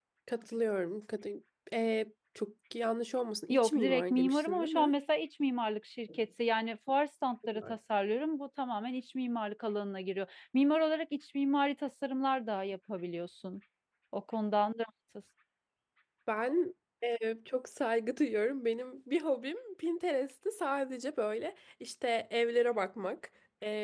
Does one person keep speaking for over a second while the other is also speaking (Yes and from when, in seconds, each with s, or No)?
Yes, from 3.5 s